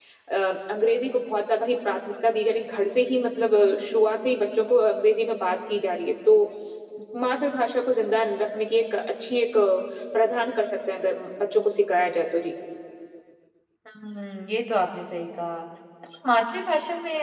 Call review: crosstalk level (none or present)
none